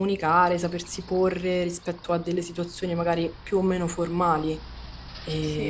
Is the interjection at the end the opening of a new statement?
No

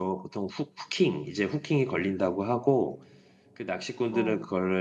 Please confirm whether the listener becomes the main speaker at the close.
No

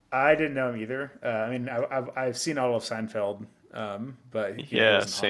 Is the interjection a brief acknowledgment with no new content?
No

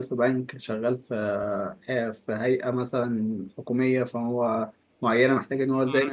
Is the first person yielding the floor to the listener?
Yes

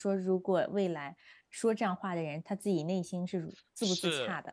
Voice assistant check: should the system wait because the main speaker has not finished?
No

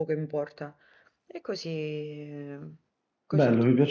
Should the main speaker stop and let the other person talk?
Yes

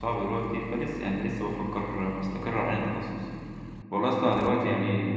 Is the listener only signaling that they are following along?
Yes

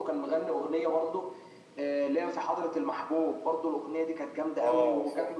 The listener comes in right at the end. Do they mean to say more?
Yes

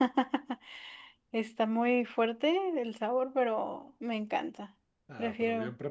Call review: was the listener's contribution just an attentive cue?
No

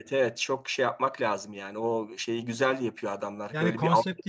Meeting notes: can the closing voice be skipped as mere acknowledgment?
No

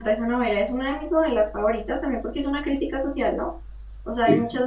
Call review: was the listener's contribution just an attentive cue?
Yes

